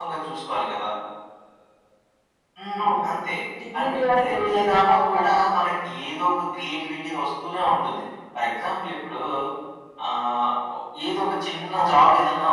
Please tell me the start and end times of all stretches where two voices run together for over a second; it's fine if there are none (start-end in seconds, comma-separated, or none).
3.8-5.3